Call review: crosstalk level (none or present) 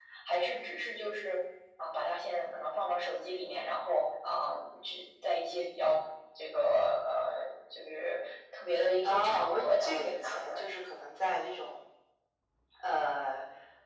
present